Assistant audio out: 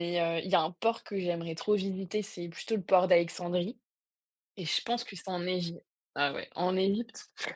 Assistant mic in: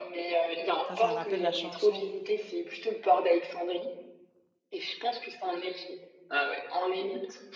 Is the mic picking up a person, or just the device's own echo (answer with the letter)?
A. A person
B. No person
A